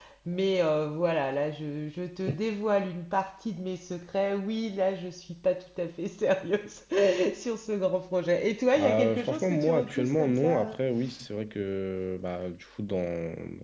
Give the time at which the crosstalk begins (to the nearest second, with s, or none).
9 s